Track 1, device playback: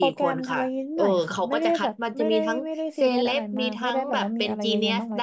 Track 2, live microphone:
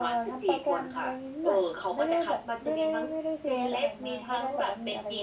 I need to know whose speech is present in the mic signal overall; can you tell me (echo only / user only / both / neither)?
echo only